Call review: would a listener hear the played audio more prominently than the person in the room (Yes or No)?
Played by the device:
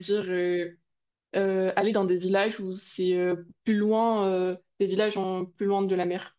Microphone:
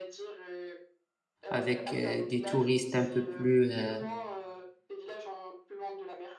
No